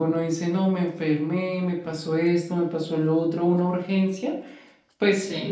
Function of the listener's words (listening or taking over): listening